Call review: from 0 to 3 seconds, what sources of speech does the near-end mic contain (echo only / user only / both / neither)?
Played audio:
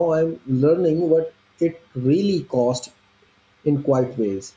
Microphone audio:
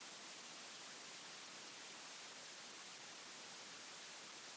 neither